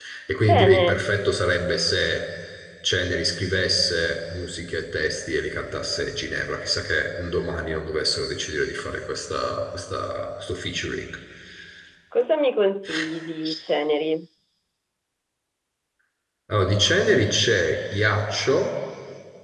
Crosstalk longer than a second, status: none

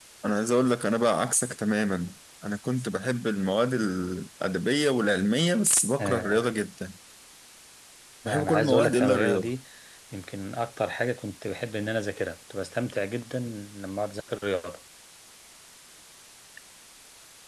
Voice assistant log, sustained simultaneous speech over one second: present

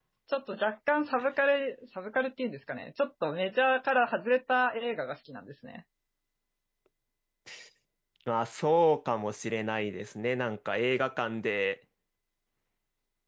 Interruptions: none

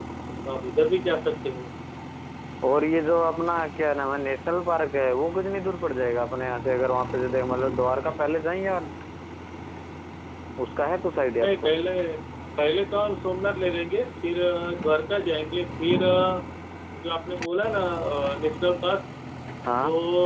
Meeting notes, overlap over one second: none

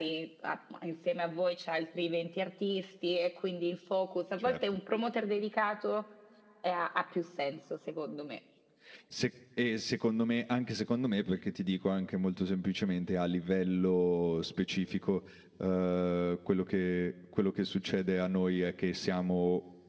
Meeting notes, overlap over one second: none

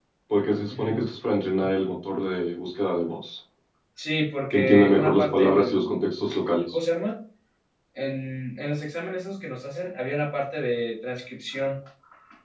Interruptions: present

